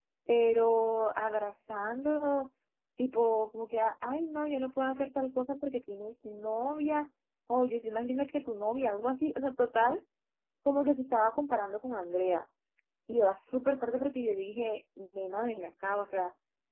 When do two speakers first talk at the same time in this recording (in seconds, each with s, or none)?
none